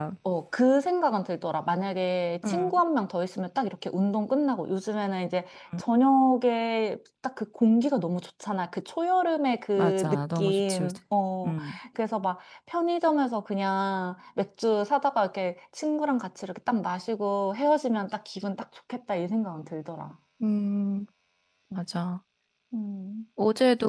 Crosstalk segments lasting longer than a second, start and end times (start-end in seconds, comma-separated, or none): 9.8-11.0